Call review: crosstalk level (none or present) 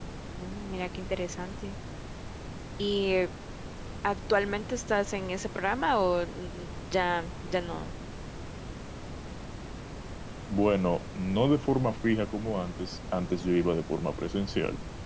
none